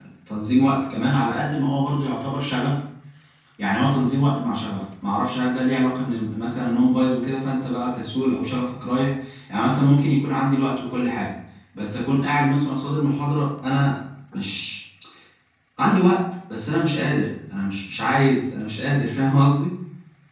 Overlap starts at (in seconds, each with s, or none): none